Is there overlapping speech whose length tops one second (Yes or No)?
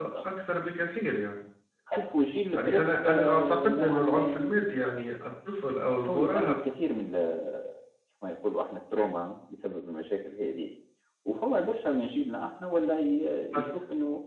Yes